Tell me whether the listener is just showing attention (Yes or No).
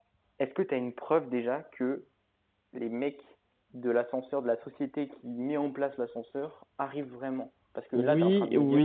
No